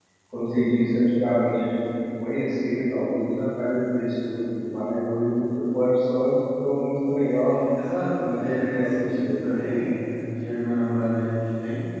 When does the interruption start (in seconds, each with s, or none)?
8.3 s